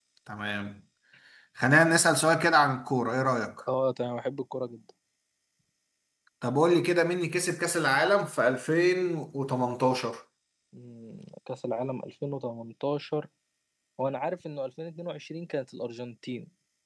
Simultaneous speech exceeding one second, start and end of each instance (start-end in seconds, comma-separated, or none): none